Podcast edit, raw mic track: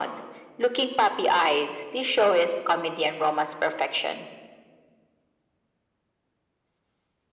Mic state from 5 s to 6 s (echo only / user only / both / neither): neither